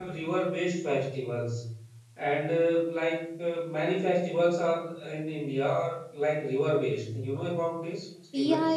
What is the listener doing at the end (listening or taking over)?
taking over